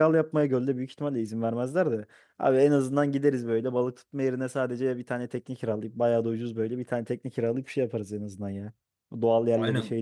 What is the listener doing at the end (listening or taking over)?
taking over